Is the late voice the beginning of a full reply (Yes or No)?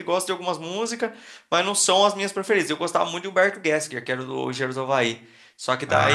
No